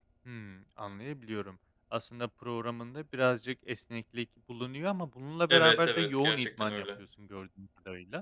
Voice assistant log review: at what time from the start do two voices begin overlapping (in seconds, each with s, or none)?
5.5 s